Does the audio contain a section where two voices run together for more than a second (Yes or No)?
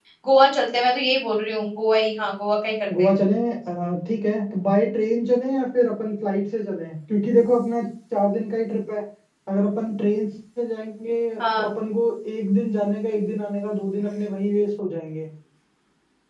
No